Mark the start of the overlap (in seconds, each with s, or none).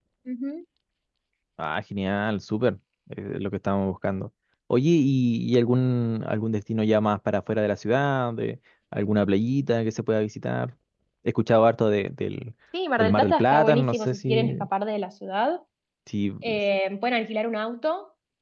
13.0 s